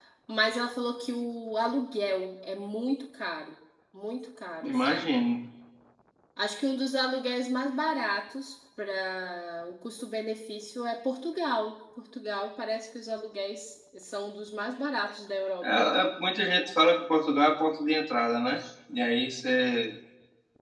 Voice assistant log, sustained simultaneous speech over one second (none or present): none